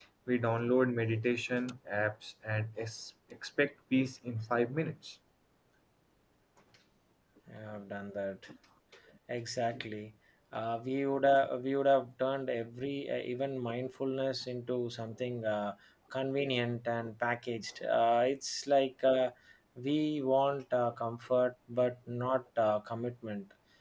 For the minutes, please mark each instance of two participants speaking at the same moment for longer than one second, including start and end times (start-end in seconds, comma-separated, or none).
none